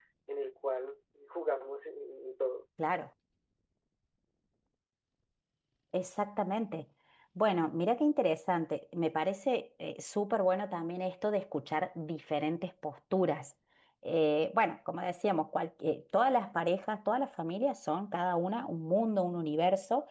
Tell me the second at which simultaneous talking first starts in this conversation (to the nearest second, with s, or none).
none